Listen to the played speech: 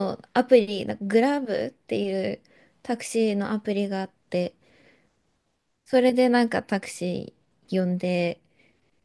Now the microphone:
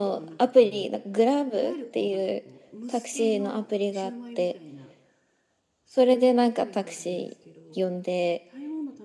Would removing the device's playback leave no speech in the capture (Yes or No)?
No